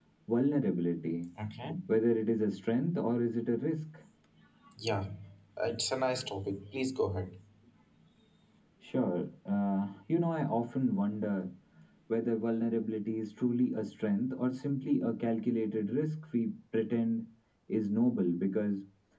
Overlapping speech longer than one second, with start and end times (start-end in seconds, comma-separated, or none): none